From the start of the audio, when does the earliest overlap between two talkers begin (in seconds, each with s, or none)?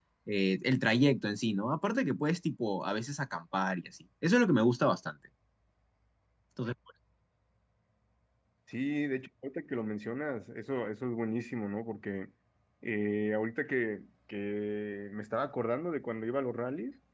none